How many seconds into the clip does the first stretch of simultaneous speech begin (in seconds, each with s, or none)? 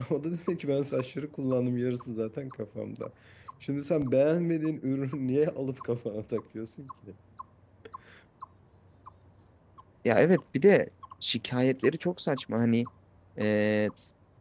none